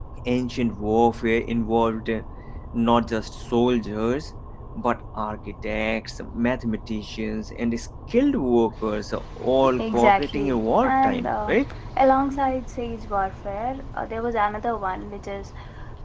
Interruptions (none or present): present